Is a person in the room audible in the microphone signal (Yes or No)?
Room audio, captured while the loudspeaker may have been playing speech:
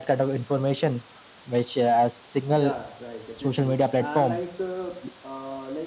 Yes